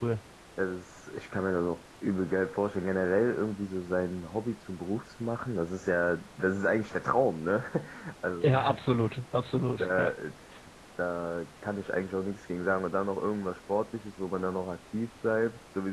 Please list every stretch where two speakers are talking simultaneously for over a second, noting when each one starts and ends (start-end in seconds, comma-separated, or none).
none